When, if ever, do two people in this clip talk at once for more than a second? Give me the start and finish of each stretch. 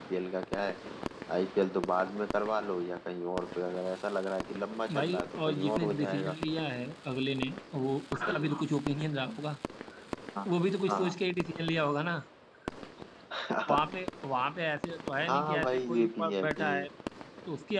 5.0-6.3, 15.3-16.7

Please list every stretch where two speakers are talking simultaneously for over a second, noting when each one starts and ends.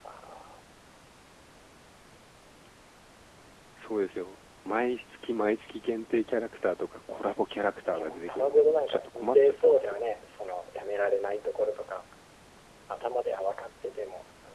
7.9-10.0

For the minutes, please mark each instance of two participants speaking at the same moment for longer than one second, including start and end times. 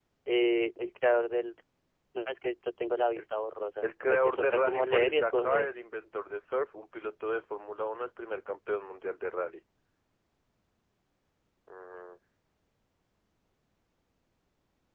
3.8-5.7

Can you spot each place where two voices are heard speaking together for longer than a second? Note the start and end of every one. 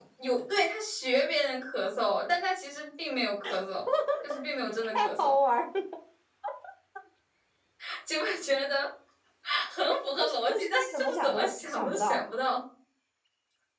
10.1-12.2

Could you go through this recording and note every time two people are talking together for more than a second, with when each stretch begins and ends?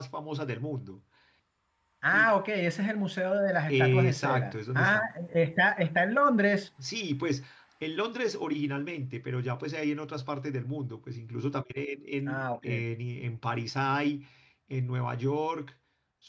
3.7-5.0

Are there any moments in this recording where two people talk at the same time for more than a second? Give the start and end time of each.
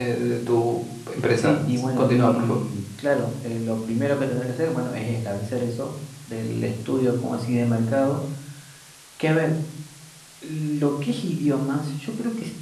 1.4-2.6

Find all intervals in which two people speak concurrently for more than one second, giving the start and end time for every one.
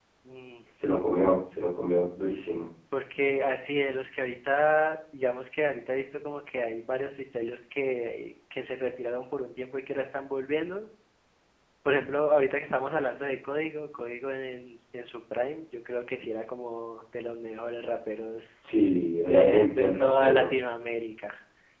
19.3-20.5

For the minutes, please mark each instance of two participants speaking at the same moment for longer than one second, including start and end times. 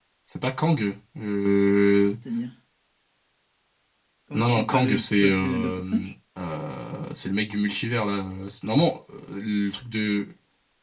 4.3-6.1

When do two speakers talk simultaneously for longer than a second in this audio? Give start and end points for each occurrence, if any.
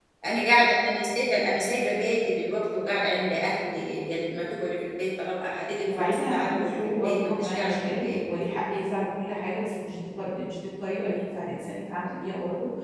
5.9-8.2

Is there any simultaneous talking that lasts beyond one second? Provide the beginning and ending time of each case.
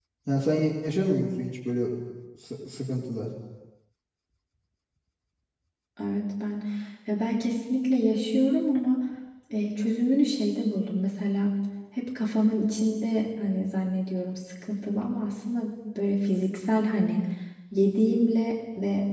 none

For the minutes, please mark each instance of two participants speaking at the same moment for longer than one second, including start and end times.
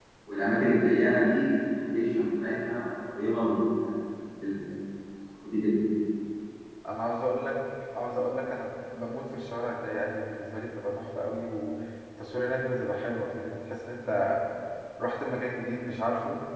none

